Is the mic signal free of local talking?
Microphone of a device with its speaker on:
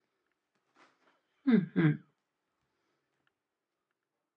No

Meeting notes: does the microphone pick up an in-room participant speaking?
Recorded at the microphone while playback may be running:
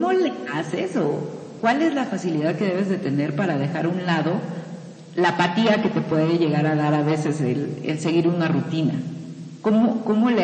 No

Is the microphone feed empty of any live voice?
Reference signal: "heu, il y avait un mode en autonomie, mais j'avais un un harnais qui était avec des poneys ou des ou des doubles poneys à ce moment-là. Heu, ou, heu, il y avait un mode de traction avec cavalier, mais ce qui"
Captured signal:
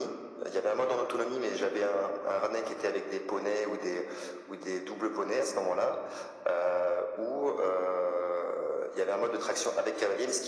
Yes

